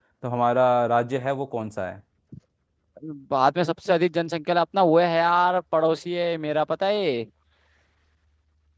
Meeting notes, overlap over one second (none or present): none